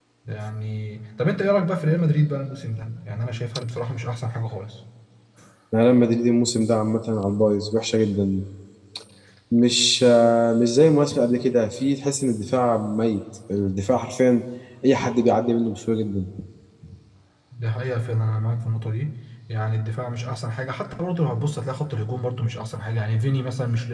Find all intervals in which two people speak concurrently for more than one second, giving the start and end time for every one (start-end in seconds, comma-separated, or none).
none